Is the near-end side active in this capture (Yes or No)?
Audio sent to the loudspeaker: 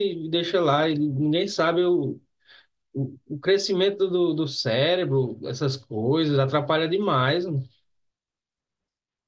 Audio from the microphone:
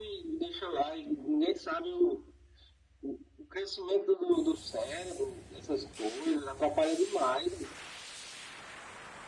No